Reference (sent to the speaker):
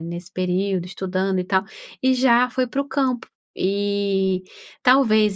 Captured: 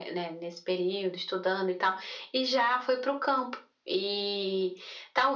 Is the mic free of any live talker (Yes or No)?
Yes